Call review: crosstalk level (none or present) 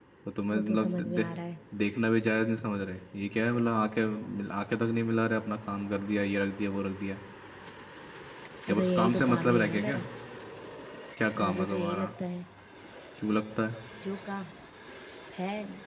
present